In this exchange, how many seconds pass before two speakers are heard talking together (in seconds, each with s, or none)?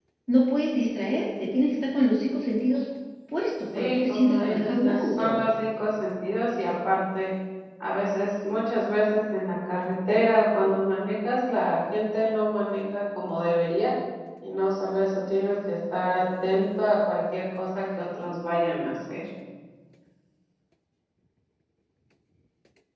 3.7 s